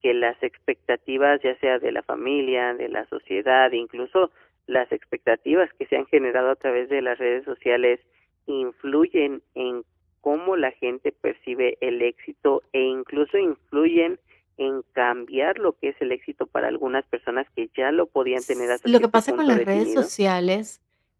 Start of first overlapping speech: 18.4 s

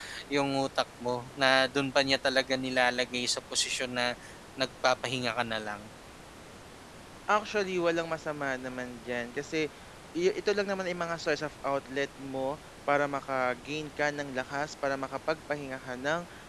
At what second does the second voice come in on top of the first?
none

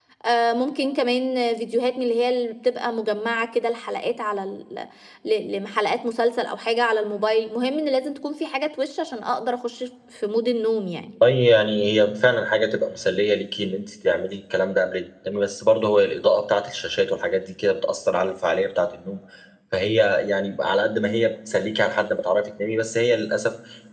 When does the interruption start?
none

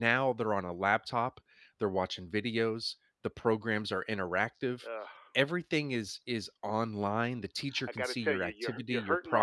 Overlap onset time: 7.9 s

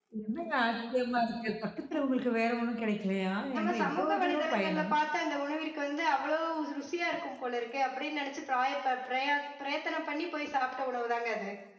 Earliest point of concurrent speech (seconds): 3.5 s

